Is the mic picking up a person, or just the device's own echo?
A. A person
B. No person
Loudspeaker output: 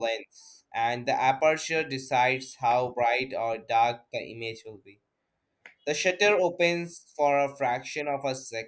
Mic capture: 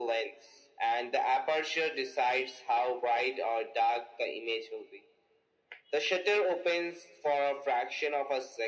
B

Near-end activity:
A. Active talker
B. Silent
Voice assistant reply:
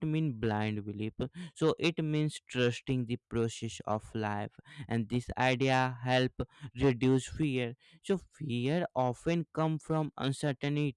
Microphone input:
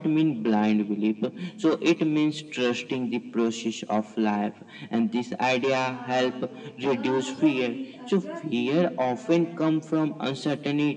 A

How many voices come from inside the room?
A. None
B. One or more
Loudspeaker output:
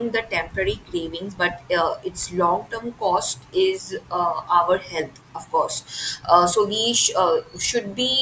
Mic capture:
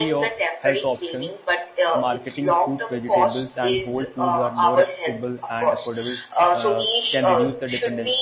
B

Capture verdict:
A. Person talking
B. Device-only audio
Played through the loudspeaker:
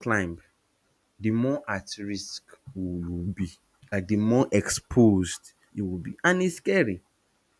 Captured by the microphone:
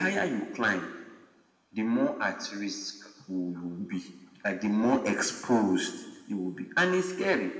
B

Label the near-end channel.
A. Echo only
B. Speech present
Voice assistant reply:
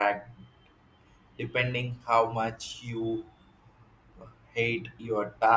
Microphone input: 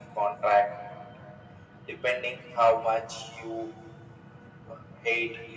A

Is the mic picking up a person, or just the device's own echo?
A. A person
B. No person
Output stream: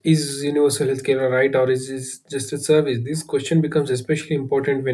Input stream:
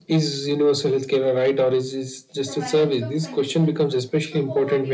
A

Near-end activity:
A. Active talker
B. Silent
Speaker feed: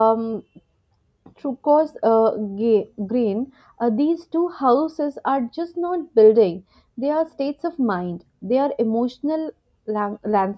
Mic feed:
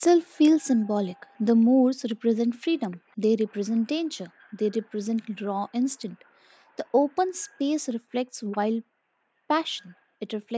A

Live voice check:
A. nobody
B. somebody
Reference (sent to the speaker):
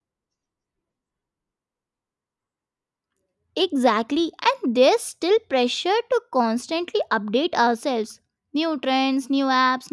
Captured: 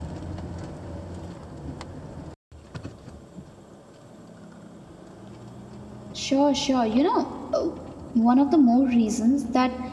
B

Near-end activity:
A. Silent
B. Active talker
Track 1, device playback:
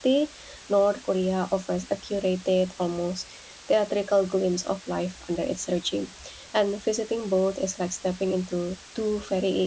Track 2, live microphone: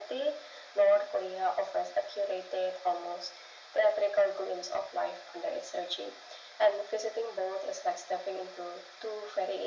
A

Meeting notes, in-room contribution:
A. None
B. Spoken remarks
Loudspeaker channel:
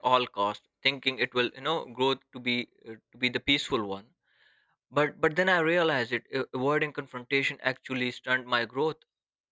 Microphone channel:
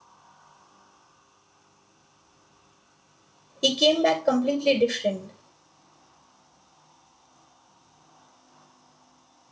B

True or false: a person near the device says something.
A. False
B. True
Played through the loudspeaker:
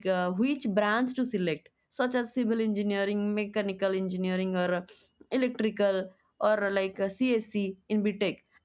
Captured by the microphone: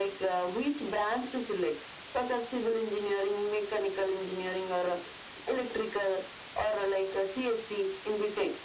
A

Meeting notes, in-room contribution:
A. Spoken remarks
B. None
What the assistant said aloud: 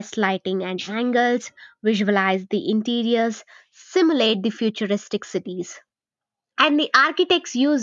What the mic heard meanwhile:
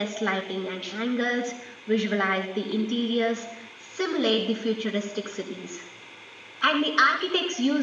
B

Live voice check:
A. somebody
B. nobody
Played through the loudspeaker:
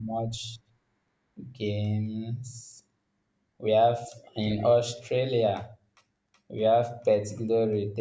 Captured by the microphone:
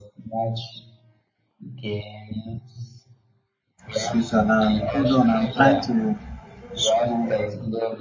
A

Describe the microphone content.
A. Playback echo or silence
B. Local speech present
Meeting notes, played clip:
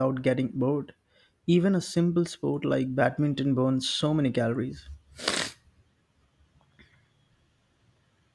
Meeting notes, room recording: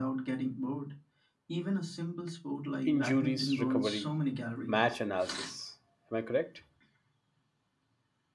B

